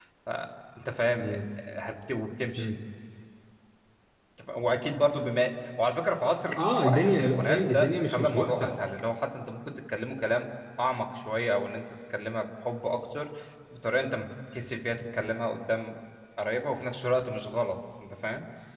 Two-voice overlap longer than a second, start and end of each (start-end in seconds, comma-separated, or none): 6.6-8.7